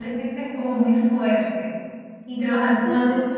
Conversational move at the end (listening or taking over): listening